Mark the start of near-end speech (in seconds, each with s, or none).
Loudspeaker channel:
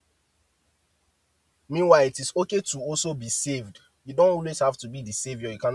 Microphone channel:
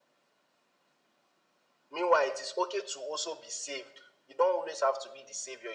none